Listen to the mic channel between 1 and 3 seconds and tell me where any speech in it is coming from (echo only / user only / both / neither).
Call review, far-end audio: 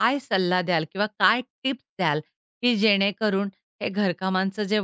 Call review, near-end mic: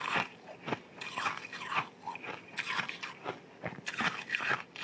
neither